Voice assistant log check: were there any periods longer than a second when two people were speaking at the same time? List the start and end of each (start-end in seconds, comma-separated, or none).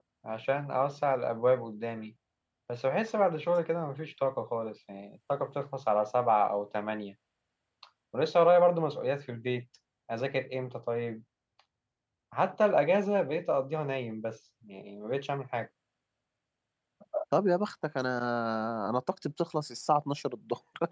none